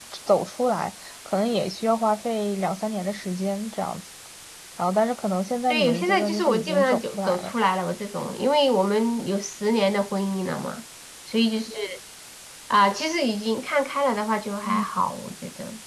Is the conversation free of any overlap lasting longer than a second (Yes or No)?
No